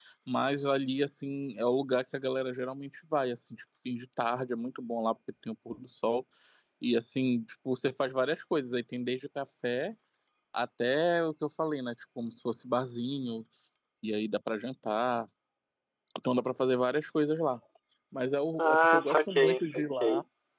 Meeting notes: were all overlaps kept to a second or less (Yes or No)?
No